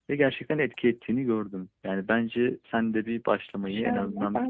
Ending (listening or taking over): taking over